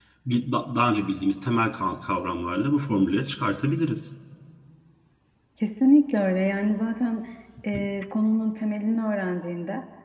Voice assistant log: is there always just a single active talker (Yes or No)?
Yes